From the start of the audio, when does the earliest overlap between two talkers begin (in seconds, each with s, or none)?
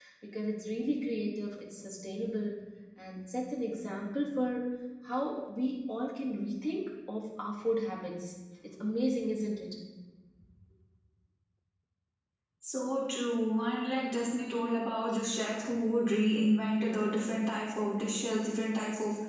none